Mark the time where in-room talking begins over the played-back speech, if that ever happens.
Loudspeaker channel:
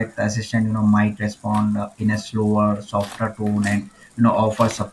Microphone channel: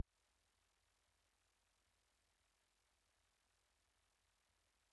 none

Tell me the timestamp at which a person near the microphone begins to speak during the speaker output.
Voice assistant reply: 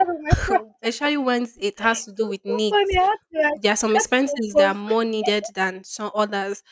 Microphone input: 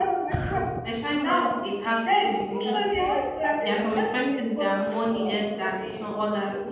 1.1 s

